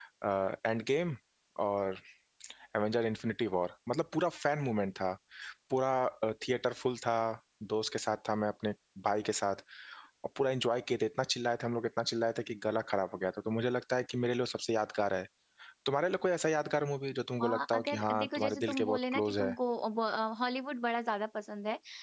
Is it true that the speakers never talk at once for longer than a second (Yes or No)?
No